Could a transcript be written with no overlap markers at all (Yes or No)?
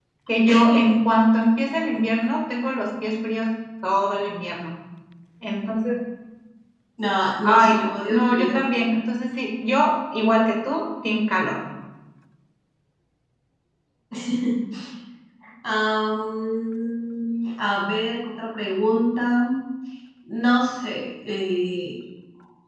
No